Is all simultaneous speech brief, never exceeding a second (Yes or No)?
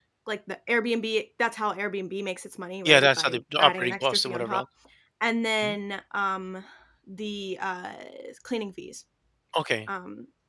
No